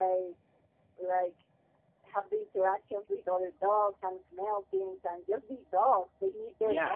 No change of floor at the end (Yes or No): No